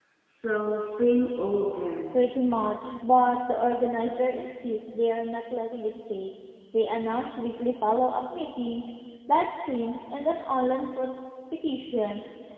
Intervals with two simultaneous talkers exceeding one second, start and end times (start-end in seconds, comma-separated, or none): none